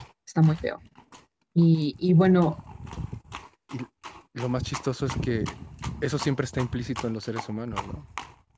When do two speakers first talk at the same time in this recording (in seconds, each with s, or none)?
none